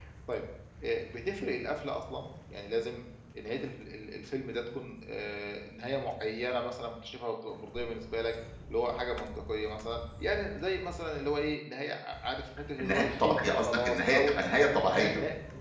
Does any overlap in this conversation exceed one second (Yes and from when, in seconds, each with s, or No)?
Yes, from 12.8 s